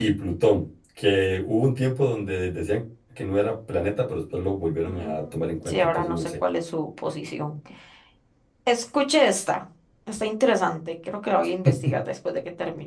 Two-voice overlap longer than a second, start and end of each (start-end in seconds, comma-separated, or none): 4.9-6.4